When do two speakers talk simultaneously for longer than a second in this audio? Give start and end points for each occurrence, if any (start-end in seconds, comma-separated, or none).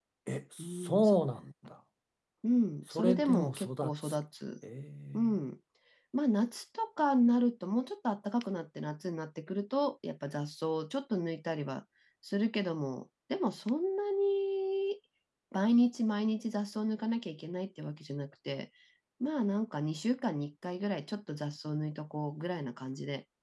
2.9-4.2